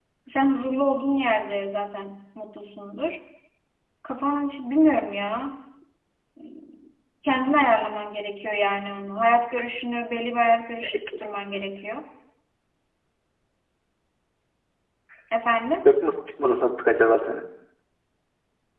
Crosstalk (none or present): none